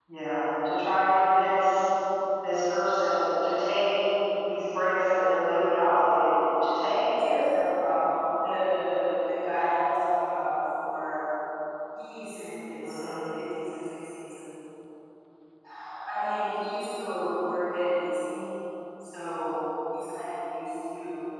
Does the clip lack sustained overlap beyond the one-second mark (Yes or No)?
Yes